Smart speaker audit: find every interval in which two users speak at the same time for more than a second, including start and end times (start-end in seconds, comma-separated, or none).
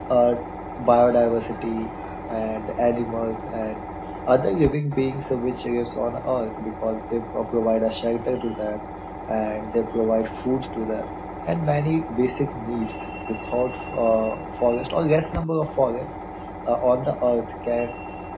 none